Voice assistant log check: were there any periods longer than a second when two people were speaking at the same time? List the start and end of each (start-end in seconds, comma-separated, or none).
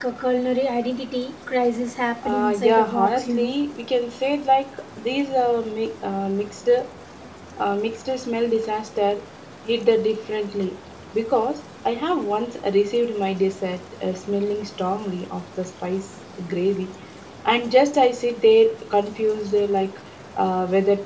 2.2-3.5